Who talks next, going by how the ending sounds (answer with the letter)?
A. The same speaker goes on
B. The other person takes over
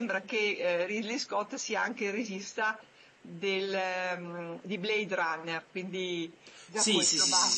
B